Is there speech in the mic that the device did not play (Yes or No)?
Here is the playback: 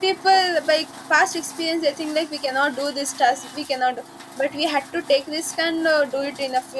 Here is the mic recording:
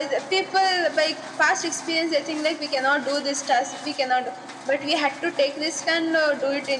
No